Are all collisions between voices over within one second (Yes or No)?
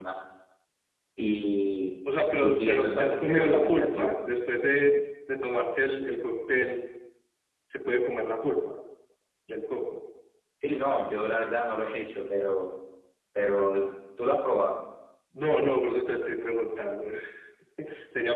No